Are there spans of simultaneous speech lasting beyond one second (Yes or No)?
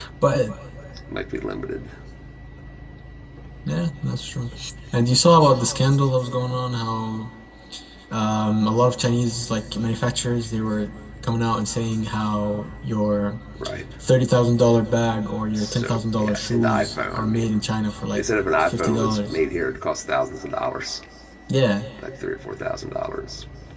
Yes